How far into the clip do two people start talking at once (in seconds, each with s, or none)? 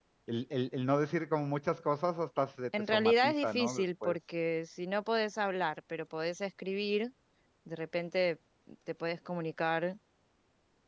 2.7 s